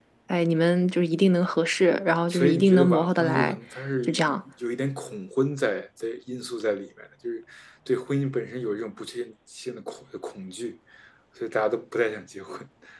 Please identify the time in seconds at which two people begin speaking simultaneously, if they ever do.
2.3 s

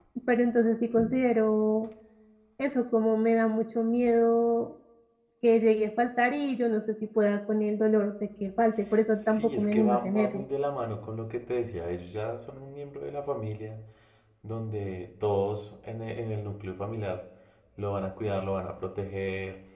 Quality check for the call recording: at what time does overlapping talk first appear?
9.2 s

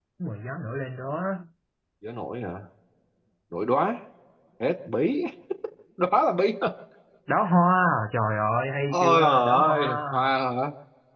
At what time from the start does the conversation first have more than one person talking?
8.9 s

